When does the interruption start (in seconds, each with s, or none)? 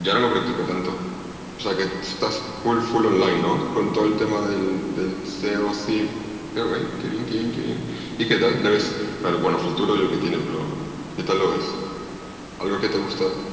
none